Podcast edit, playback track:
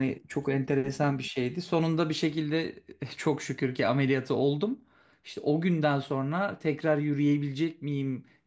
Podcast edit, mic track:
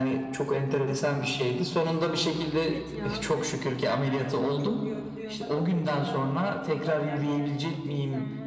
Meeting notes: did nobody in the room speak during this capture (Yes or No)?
No